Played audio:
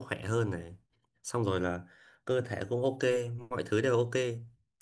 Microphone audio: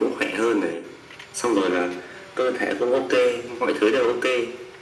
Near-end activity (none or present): none